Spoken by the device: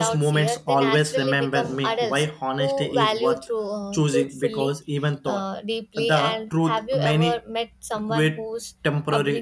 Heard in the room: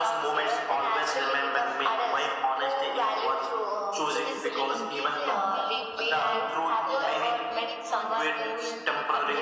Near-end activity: present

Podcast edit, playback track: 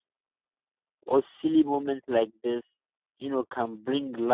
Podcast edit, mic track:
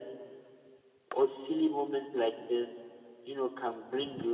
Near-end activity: none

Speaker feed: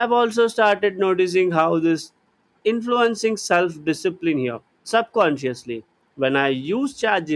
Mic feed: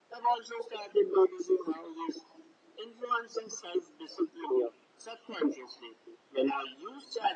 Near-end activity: none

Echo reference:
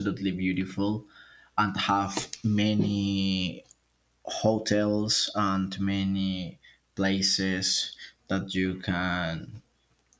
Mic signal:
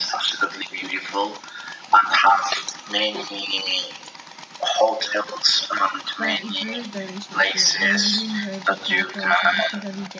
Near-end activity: present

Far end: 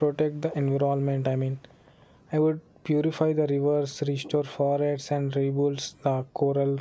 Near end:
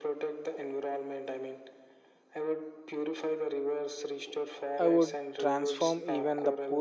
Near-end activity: present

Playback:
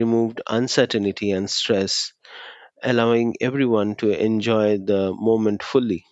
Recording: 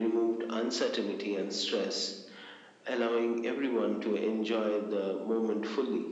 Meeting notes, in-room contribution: none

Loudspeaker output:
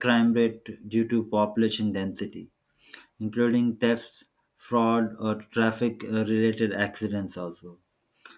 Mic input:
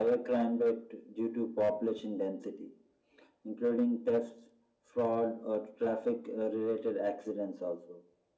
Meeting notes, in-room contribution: none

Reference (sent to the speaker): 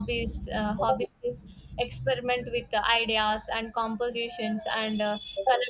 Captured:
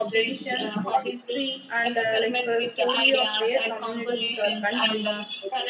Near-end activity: present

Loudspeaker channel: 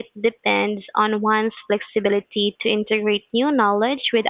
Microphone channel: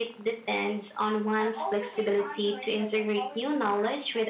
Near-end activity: present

